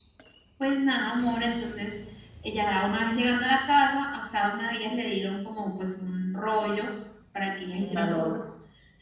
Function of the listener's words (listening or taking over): listening